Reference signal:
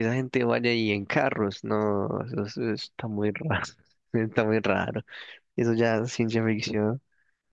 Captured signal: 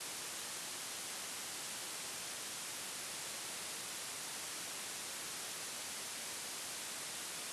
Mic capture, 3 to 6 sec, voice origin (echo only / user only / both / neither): neither